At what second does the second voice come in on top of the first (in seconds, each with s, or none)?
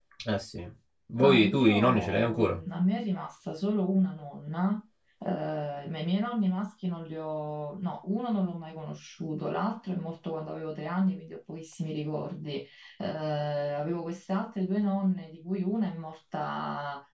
1.2 s